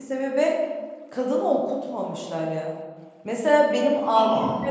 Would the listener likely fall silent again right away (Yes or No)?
Yes